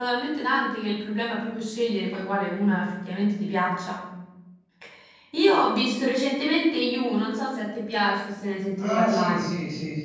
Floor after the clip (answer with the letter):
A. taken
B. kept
A